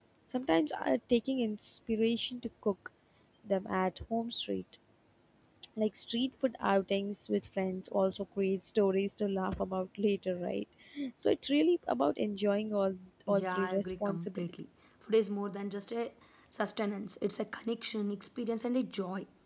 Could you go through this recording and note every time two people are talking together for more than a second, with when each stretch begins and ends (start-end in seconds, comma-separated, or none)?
13.3-14.5